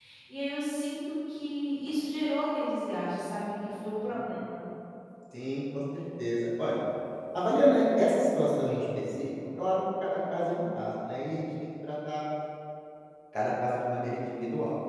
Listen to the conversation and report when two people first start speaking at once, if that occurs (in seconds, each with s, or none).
none